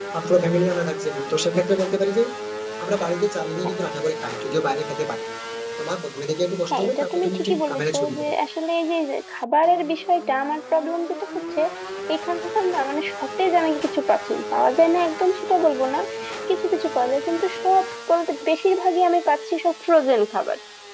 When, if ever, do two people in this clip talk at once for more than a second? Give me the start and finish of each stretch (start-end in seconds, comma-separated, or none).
6.7-8.3